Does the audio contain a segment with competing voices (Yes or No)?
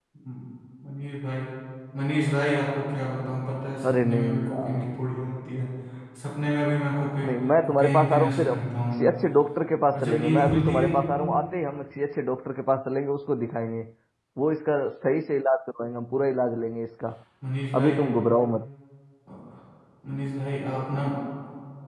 Yes